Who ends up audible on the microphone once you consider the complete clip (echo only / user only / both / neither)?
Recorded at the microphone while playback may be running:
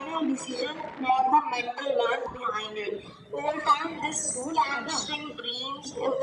both